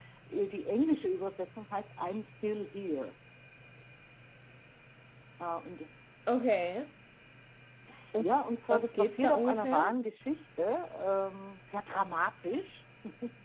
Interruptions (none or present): present